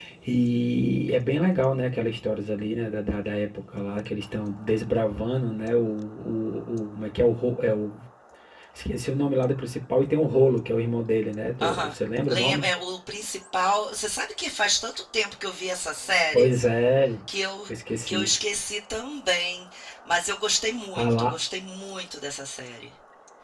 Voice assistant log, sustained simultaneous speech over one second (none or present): none